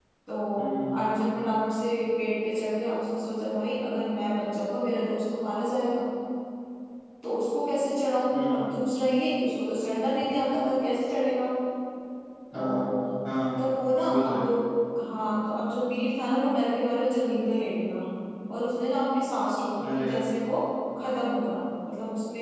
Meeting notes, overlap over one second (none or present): none